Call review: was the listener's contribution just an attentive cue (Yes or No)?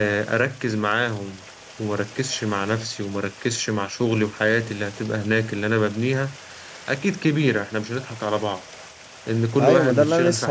No